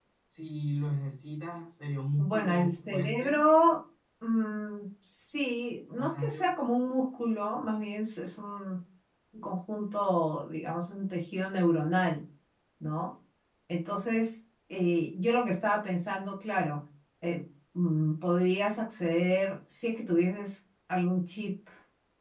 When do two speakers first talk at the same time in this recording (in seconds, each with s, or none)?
2.2 s